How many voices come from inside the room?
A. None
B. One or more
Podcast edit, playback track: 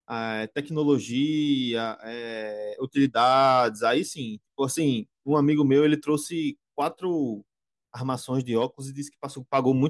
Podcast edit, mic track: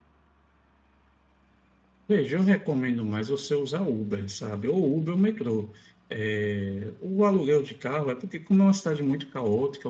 B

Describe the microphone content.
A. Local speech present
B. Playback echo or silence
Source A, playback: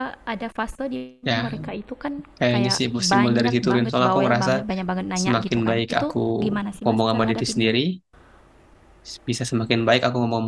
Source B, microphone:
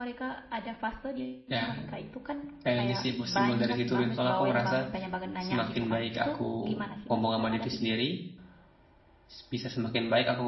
B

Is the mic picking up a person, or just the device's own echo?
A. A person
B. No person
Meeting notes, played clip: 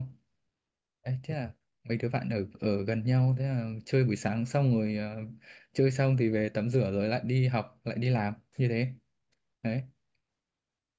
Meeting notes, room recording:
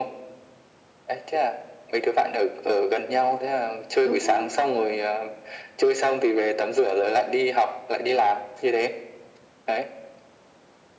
A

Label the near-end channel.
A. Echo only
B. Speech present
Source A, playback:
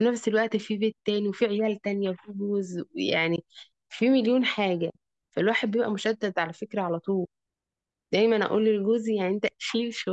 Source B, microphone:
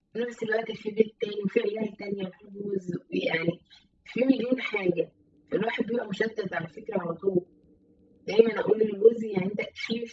A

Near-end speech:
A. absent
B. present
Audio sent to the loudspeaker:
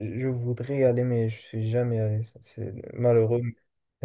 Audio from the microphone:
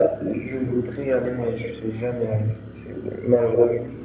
A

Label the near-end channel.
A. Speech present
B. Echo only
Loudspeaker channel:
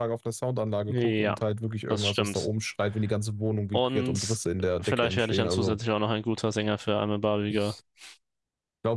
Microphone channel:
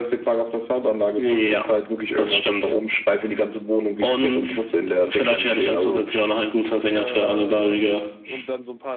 A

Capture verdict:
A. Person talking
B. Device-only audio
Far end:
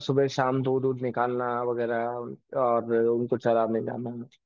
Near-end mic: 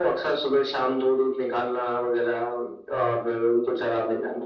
B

